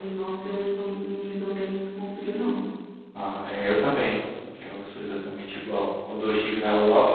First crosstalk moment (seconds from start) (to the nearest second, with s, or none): none